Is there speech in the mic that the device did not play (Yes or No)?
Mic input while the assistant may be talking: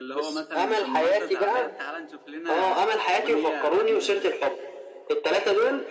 Yes